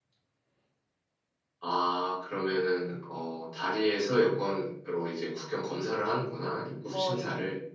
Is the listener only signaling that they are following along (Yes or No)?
No